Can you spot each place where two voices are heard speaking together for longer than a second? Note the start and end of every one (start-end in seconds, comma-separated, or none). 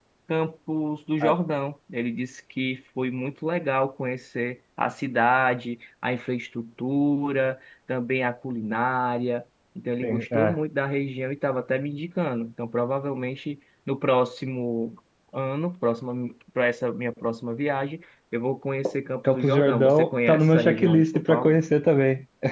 19.3-21.6